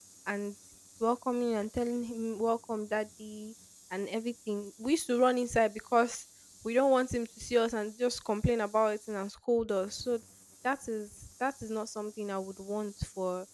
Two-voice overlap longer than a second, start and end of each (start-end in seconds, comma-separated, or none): none